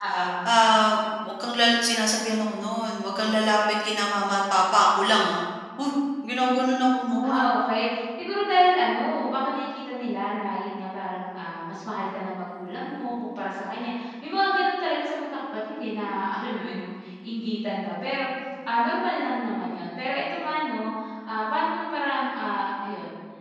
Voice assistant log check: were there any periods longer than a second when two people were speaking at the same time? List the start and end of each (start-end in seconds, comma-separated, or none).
none